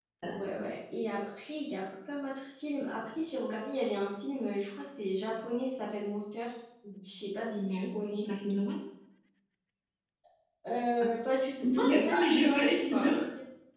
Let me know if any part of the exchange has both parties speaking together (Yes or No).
Yes